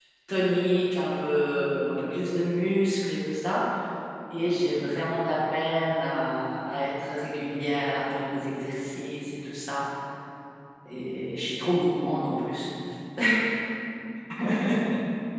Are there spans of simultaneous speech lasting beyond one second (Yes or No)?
No